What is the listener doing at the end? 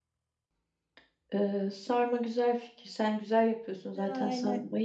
listening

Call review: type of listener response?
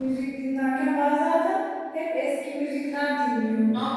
taking over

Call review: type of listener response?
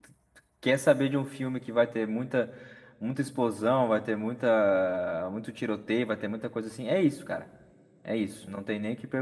listening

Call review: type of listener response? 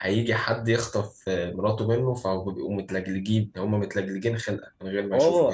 taking over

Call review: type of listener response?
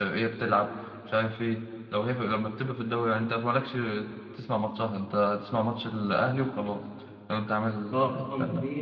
taking over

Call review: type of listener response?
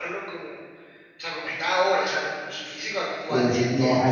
taking over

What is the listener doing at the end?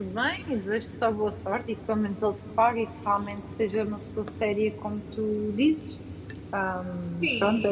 taking over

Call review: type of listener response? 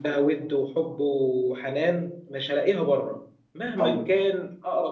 listening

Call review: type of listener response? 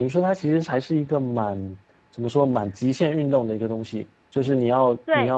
listening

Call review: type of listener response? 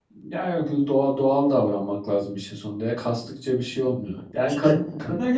listening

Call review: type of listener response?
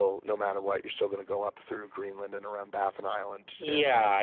taking over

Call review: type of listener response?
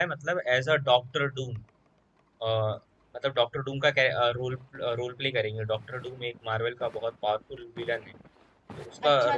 taking over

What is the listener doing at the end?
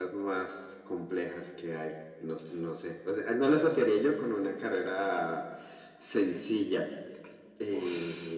taking over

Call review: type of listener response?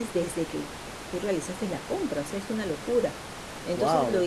taking over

